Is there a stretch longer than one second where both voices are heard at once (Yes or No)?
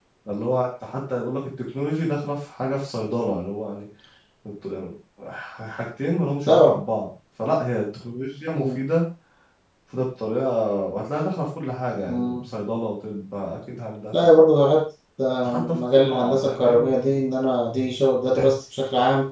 Yes